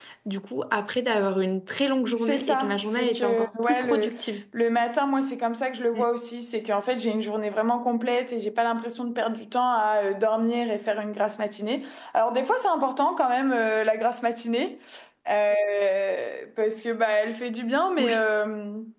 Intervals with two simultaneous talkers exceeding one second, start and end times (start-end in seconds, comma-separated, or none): 2.2-4.1